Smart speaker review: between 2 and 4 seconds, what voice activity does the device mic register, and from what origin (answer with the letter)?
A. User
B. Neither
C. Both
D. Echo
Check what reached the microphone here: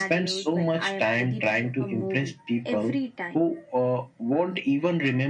D